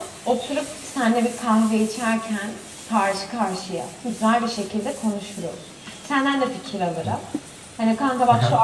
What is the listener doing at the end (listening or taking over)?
listening